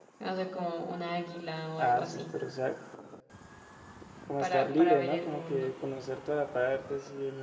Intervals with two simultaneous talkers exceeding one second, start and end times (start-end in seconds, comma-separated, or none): 4.4-5.7